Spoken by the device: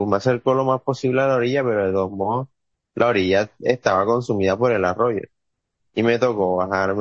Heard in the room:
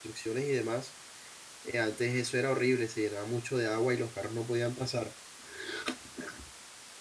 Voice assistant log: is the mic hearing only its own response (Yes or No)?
No